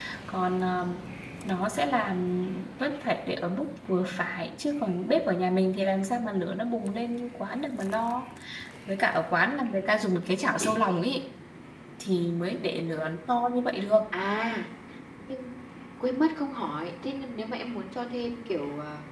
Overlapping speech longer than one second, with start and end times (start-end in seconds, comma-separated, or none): none